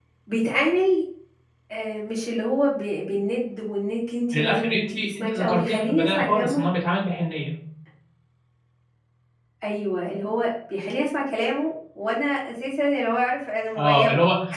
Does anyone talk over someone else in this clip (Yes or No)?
Yes